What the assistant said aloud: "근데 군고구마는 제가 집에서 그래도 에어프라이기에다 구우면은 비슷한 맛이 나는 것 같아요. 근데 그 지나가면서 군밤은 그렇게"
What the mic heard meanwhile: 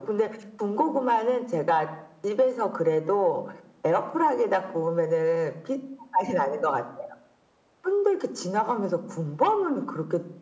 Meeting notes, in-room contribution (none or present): none